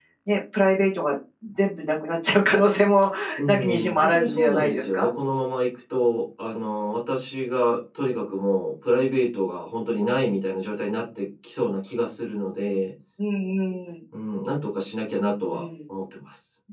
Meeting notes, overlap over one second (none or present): present